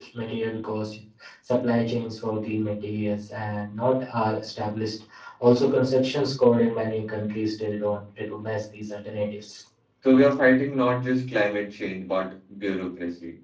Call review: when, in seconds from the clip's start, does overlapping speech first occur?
none

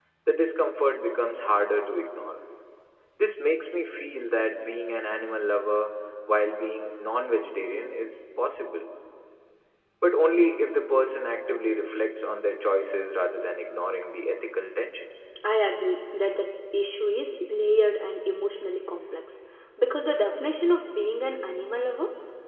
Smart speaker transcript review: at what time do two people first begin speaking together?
none

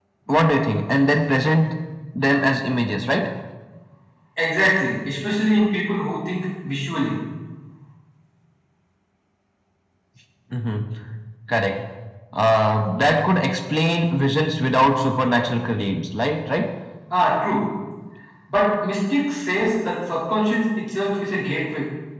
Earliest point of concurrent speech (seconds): none

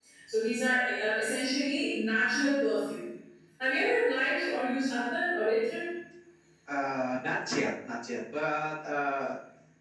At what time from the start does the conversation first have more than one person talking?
none

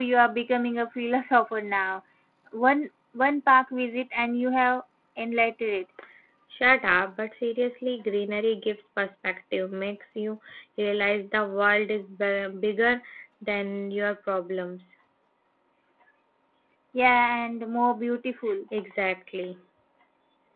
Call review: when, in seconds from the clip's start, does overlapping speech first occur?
none

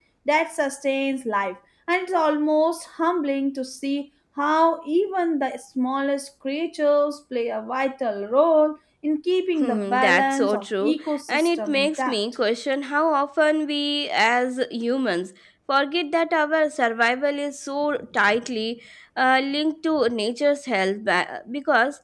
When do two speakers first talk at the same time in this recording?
9.6 s

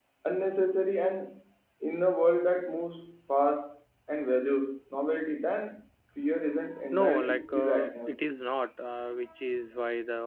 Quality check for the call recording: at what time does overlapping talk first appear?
6.9 s

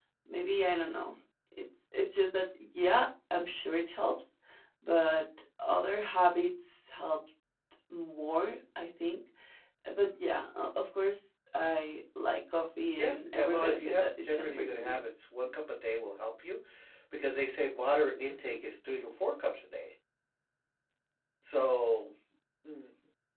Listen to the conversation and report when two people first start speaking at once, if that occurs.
12.8 s

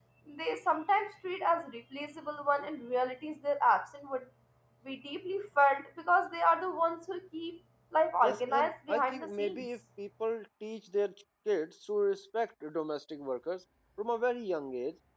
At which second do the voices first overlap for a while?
8.2 s

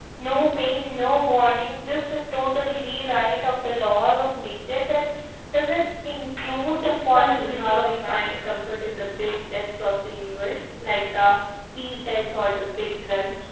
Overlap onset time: 6.8 s

